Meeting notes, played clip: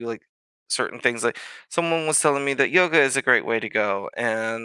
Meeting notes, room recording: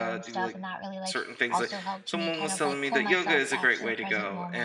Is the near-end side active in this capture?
Yes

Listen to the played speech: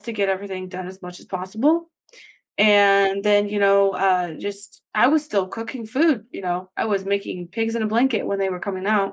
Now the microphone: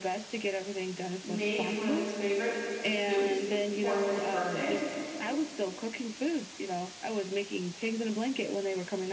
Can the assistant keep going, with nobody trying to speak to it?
No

